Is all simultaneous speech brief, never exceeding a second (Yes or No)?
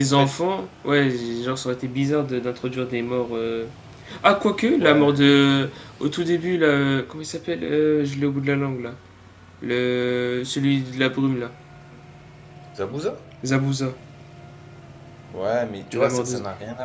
Yes